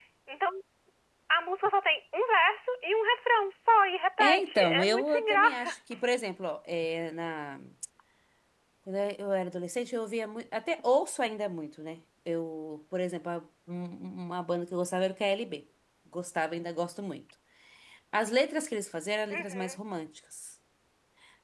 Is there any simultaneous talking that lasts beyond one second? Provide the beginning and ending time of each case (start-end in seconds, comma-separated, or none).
4.2-5.8